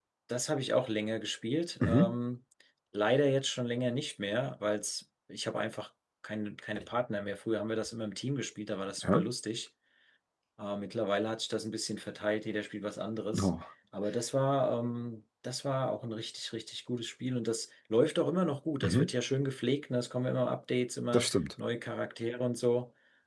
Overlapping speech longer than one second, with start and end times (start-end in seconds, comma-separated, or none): none